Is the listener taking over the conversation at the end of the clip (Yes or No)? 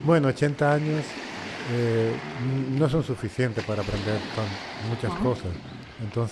No